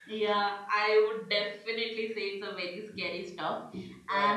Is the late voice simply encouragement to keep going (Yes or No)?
Yes